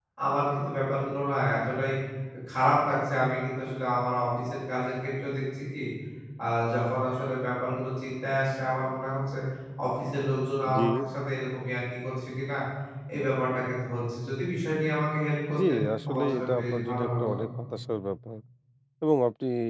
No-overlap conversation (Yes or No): No